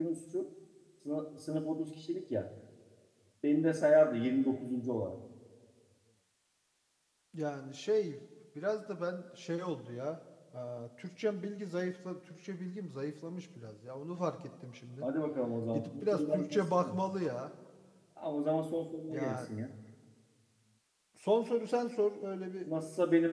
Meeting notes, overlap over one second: present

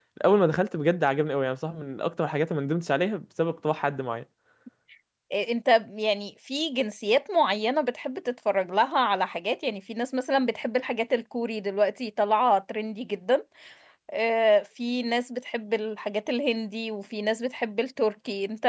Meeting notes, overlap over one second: none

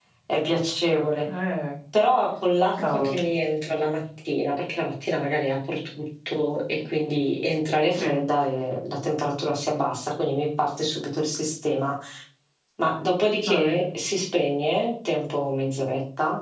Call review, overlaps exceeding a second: none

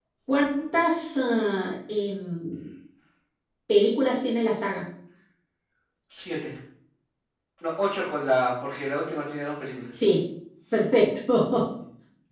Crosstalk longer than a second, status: none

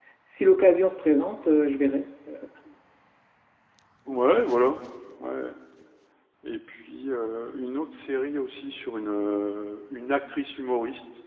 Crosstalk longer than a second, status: none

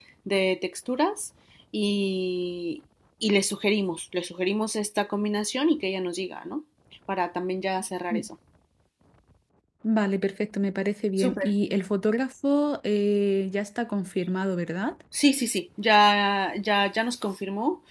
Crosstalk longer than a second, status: none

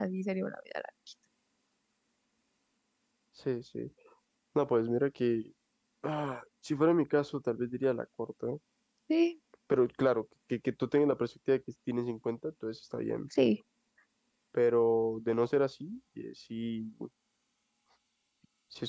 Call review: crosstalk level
none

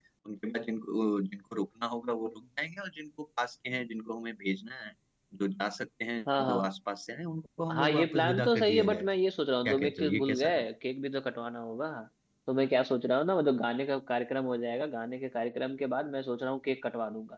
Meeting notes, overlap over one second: present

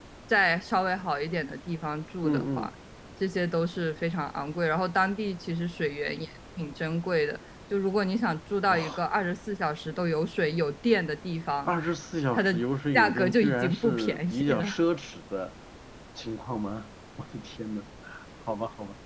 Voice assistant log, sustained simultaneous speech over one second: present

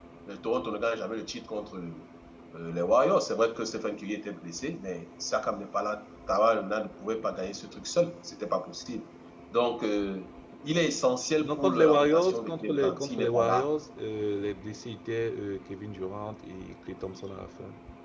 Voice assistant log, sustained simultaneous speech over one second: present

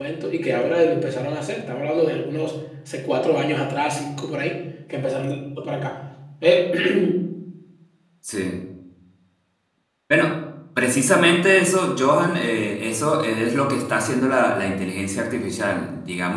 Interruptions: none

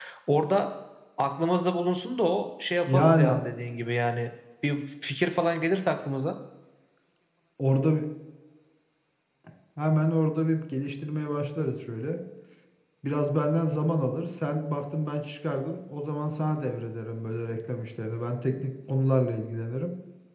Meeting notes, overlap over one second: none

